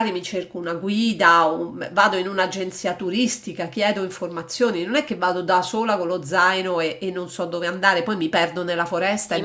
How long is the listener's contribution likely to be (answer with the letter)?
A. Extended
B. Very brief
A